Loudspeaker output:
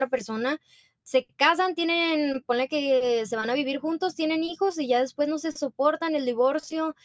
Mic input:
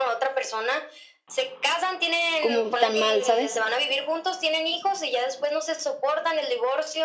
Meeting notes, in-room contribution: present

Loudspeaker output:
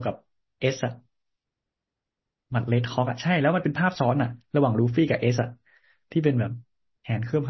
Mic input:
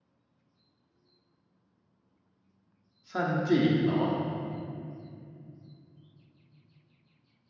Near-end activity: present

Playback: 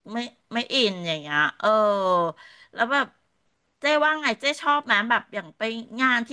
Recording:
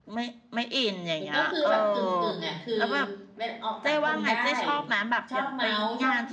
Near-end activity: present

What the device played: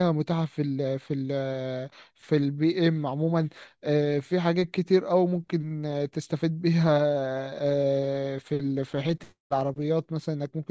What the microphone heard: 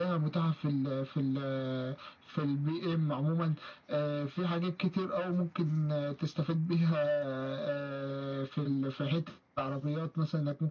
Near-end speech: none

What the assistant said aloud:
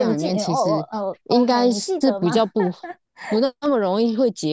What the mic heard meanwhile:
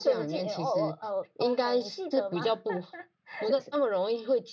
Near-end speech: present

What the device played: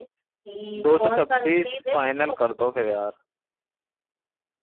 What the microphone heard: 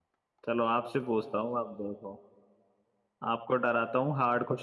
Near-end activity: present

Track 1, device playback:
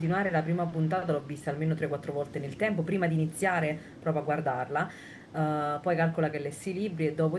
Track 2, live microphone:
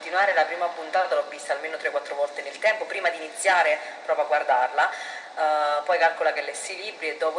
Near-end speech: none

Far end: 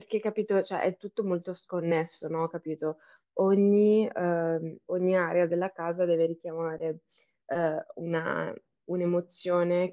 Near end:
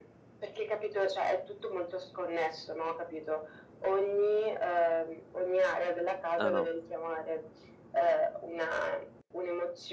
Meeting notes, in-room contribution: present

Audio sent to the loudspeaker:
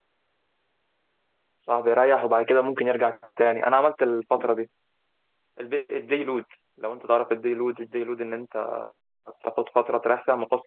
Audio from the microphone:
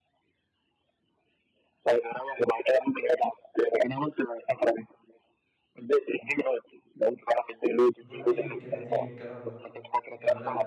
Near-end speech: present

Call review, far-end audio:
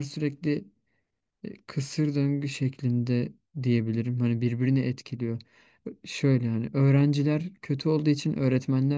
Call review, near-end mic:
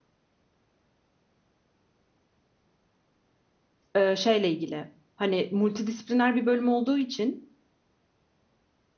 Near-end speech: present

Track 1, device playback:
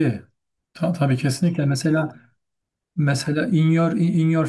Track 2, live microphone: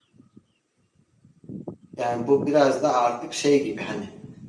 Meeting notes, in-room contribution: present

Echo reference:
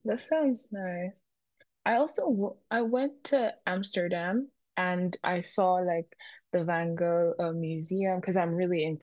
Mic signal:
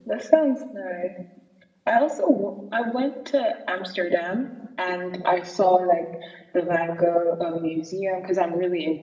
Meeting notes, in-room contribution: none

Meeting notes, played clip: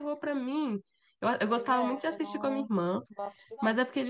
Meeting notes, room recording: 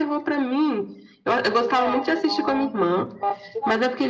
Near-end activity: none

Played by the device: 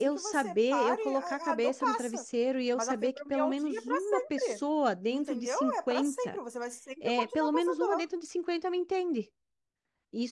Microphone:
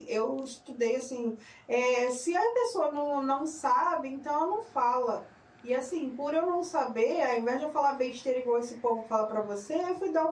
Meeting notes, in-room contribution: present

